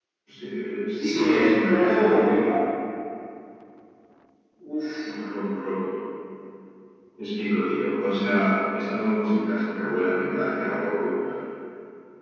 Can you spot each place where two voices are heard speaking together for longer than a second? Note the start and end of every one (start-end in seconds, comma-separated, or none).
1.1-2.3